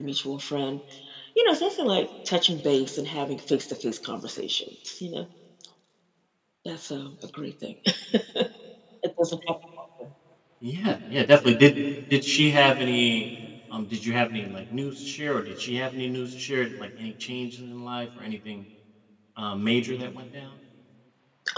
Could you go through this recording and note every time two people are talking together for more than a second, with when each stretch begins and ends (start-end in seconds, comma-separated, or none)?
none